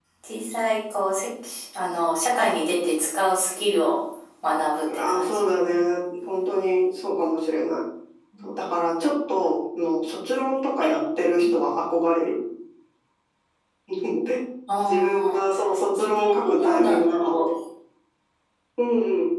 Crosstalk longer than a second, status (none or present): present